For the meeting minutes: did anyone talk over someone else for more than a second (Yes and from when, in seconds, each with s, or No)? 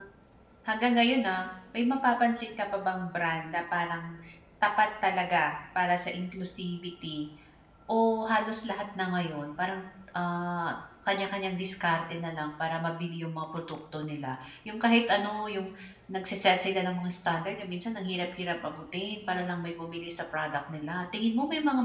No